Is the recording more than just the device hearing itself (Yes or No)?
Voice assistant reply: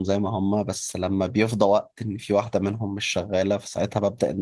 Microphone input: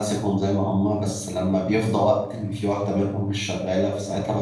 No